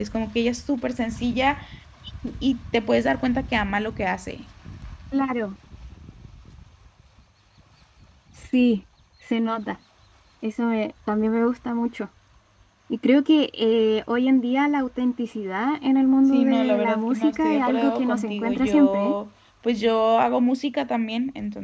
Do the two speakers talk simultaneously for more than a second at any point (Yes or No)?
Yes